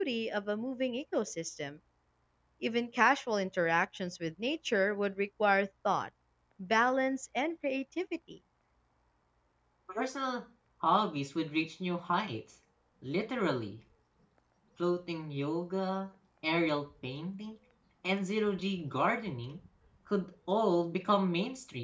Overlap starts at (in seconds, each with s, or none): none